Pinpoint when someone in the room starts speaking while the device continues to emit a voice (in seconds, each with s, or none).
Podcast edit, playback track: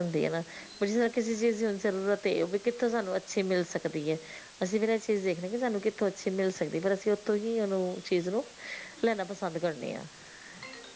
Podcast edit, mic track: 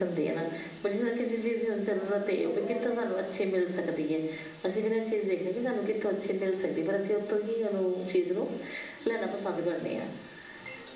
2.0 s